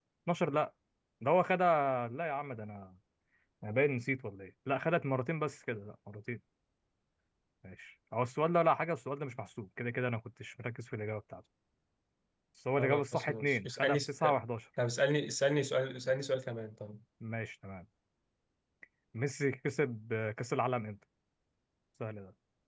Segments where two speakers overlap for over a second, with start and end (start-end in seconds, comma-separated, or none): 12.8-14.4